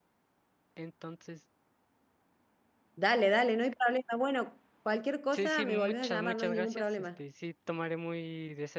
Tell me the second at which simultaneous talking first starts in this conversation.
5.3 s

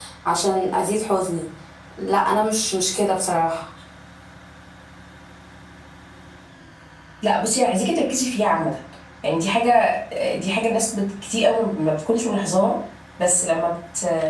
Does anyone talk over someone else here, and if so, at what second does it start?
none

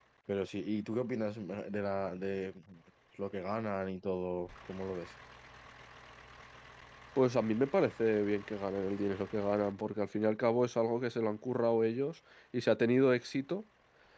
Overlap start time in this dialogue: none

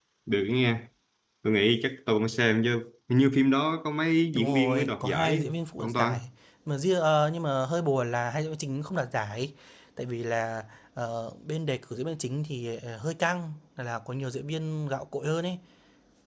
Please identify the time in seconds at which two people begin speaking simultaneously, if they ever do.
4.3 s

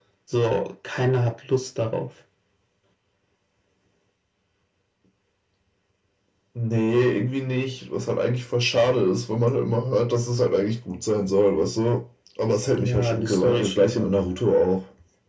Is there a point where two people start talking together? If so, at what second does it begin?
12.7 s

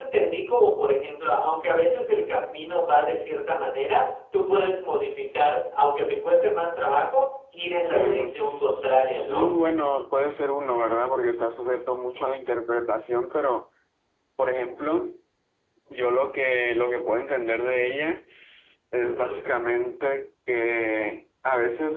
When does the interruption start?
7.9 s

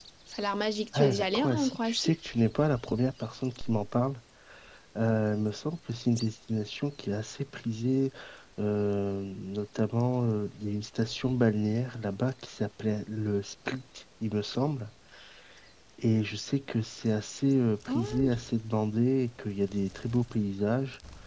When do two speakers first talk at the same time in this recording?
0.9 s

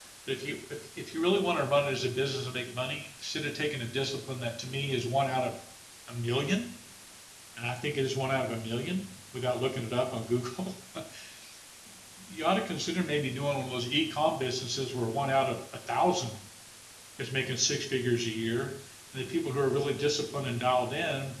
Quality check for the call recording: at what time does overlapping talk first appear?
none

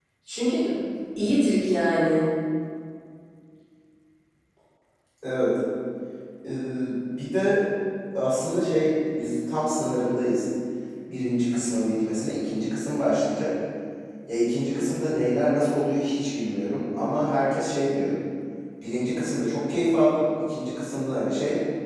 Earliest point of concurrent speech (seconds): none

